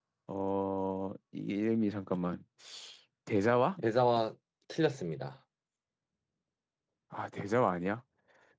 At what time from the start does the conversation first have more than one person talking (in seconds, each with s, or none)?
none